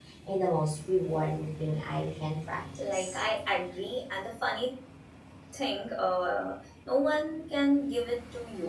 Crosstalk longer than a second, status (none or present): none